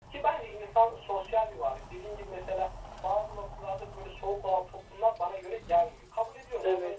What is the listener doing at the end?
listening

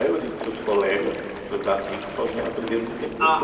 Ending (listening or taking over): taking over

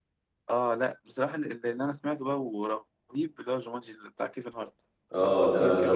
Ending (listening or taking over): taking over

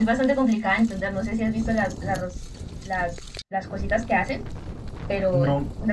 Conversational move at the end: taking over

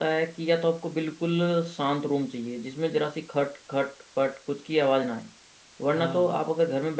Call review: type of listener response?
listening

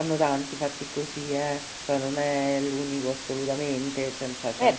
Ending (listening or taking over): taking over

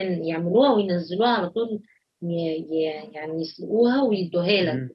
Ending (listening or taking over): taking over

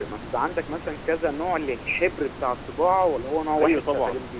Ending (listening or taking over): taking over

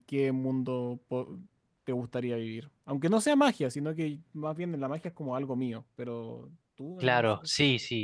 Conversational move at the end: taking over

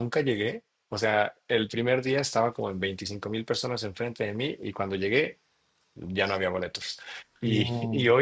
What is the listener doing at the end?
listening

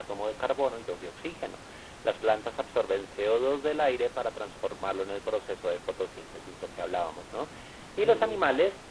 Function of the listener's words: listening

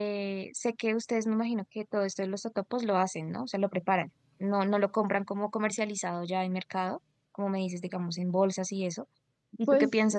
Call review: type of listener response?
listening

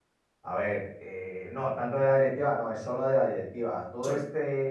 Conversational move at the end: listening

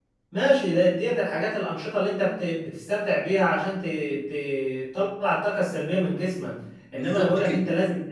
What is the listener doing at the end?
listening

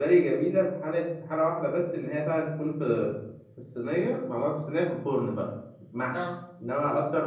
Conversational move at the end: listening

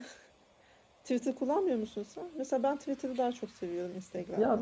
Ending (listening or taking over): taking over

